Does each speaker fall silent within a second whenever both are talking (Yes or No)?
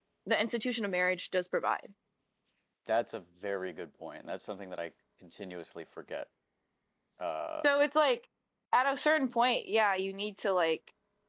Yes